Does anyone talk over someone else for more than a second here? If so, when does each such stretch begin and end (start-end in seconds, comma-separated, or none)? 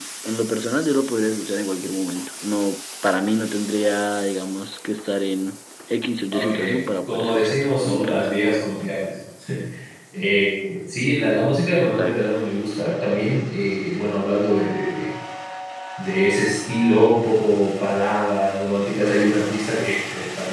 7.1-8.3